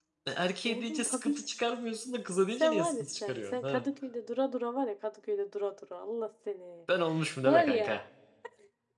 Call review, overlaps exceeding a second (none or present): present